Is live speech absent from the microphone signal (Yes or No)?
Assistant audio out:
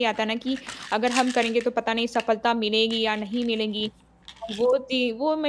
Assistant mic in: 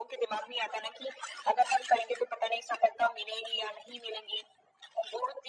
Yes